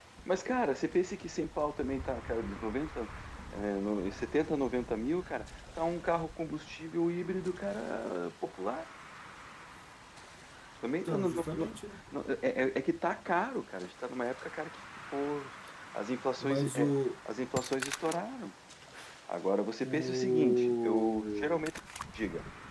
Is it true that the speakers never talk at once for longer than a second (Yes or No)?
No